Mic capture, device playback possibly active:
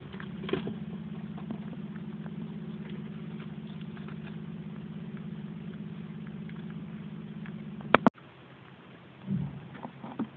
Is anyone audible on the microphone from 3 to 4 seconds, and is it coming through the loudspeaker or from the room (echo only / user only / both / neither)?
neither